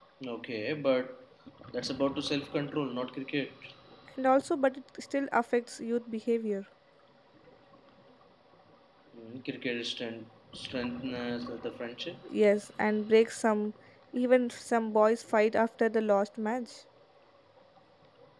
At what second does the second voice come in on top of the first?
none

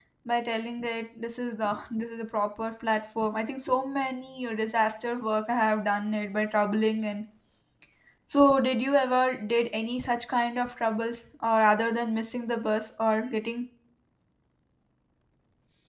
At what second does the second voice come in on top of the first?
none

